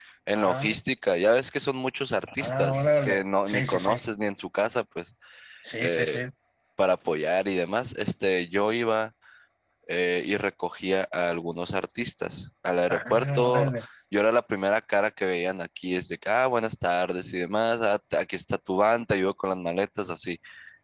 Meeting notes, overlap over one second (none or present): present